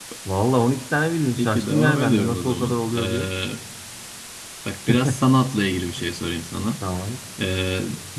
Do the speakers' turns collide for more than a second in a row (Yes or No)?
Yes